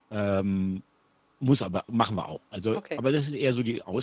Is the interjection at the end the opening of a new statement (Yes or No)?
No